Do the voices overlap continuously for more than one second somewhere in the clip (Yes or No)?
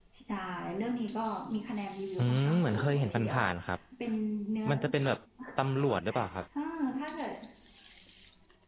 Yes